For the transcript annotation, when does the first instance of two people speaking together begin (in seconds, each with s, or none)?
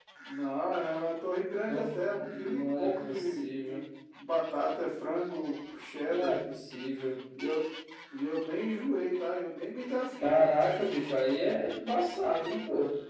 1.7 s